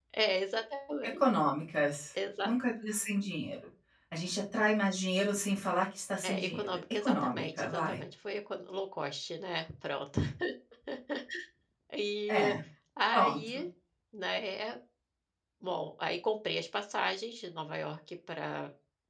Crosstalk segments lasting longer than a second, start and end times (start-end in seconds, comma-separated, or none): 6.2-8.0